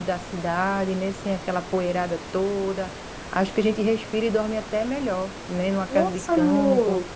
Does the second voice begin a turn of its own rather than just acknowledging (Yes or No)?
Yes